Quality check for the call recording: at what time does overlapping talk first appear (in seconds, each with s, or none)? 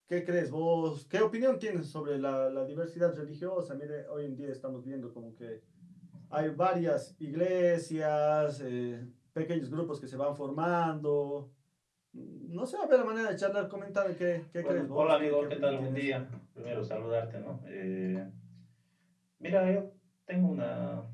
14.6 s